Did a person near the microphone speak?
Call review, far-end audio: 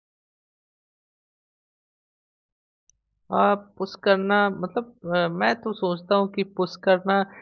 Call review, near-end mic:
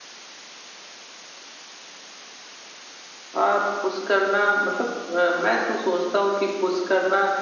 No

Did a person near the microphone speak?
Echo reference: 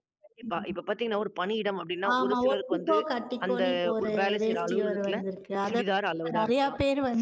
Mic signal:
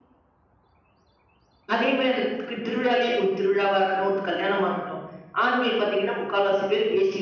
Yes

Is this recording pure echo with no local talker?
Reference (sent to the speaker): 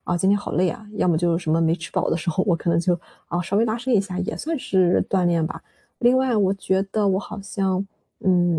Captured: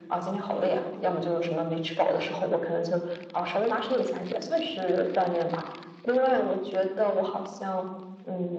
Yes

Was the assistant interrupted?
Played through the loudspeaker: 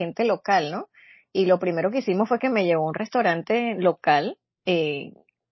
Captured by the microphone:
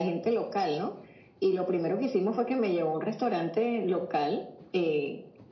No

